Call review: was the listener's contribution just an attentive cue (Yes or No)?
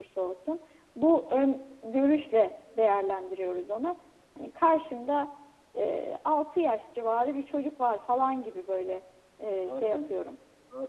No